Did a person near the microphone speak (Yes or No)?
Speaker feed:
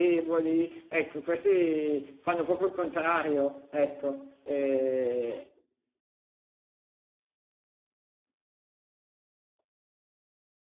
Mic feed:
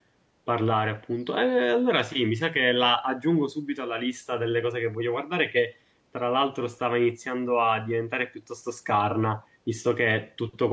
Yes